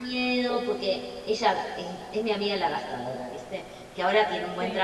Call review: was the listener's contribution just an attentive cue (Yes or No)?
Yes